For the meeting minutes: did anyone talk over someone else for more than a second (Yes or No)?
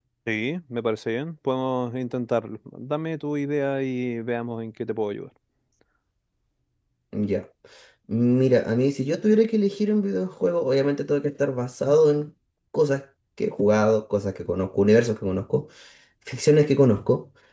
No